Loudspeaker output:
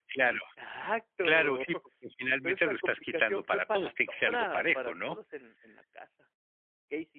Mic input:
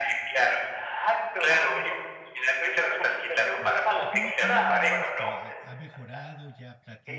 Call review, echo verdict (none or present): present